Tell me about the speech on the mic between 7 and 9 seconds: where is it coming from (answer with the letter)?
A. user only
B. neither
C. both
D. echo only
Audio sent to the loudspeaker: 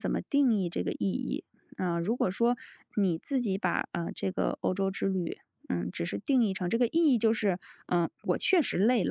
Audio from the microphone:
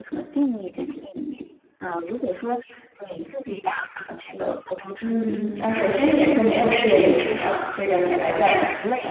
C